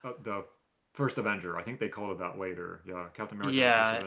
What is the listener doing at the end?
taking over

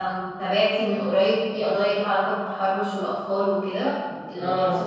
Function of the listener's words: listening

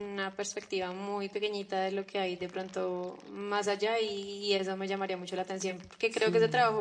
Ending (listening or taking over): listening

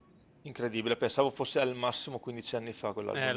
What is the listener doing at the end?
taking over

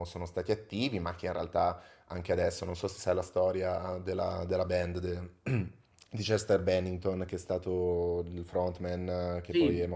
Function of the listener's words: taking over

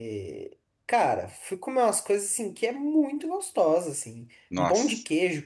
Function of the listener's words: listening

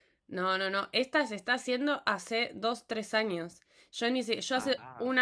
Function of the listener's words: listening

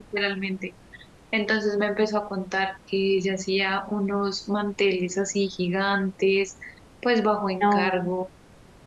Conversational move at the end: listening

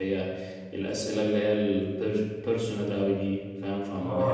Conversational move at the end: taking over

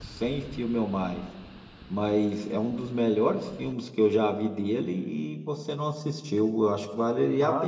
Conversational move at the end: taking over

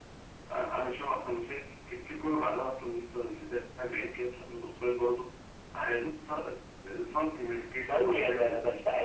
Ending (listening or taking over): taking over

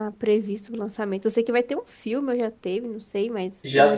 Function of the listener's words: taking over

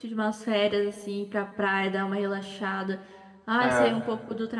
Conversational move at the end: listening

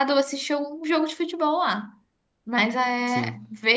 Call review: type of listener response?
listening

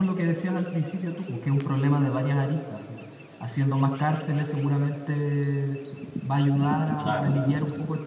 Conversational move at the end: listening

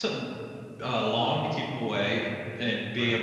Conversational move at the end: listening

